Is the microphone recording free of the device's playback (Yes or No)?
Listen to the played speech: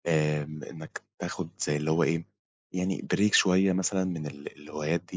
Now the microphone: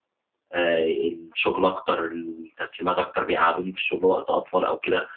Yes